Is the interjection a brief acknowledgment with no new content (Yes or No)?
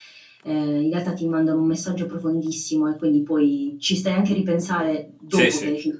No